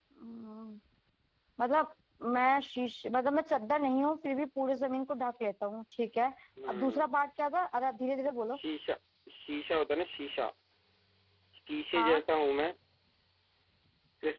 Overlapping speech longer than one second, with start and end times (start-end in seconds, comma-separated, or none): none